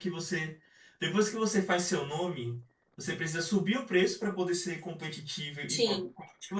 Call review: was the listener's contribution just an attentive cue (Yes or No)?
Yes